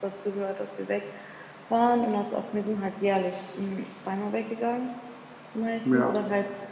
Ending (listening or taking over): listening